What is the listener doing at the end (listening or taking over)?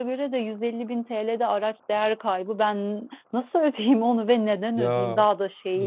taking over